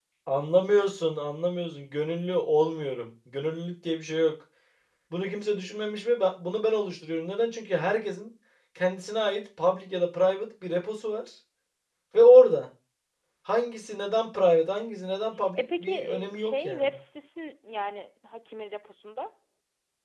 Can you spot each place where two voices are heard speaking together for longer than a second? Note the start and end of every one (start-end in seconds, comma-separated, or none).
15.6-17.0